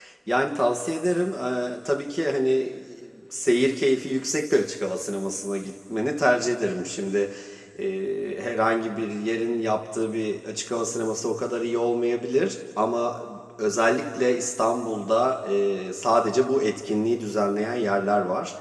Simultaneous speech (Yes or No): No